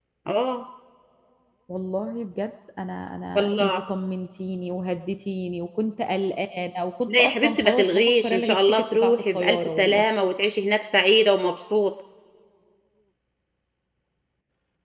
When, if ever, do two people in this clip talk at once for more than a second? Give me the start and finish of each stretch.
7.2-10.0

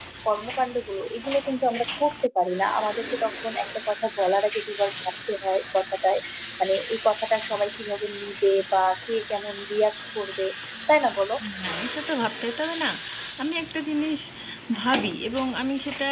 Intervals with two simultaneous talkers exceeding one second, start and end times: none

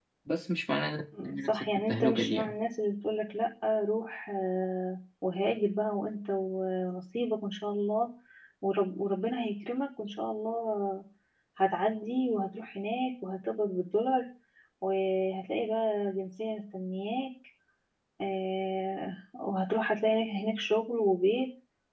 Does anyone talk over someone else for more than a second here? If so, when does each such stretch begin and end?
1.2-2.5

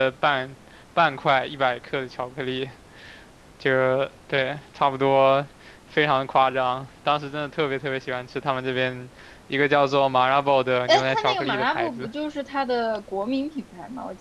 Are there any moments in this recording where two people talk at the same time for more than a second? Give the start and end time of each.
10.9-12.1

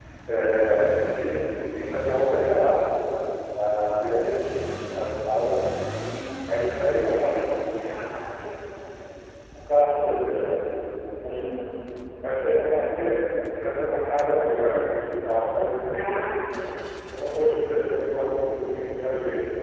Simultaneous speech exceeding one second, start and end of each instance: 6.5-7.7

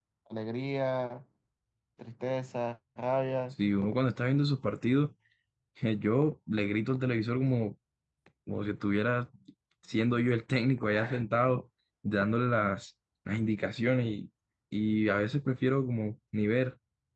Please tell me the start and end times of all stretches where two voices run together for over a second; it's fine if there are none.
none

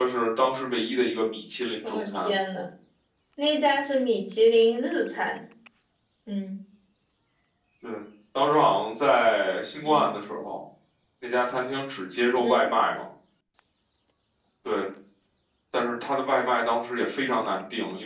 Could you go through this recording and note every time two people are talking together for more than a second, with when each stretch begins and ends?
none

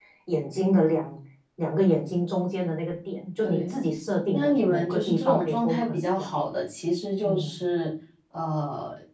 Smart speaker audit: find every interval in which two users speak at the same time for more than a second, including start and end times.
4.3-6.3

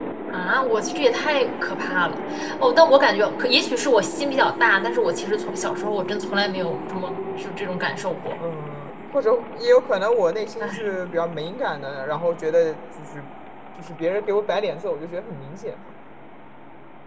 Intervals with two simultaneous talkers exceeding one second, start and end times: none

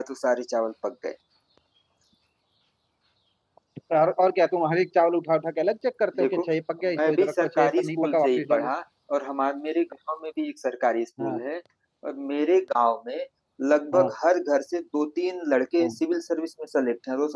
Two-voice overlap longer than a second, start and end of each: 7.0-8.7

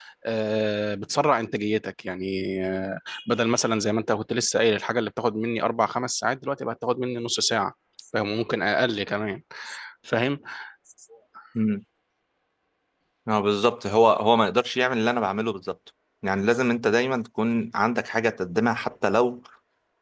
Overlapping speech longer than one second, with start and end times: none

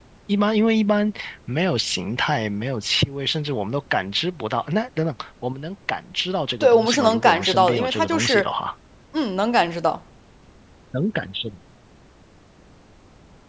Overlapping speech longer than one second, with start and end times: 6.6-8.5

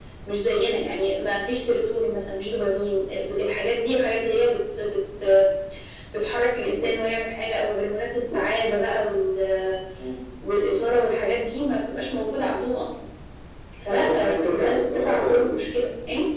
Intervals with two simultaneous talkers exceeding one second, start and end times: 13.9-15.7

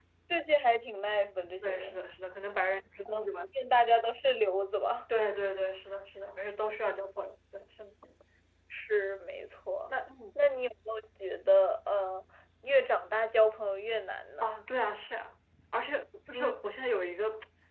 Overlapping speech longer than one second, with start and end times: none

